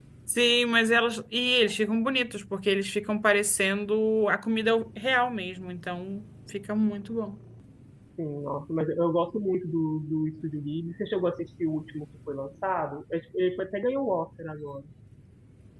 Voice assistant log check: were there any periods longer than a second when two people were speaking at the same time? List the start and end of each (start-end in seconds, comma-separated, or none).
none